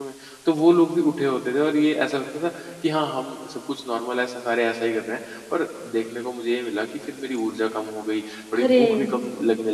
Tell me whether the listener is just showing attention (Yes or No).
Yes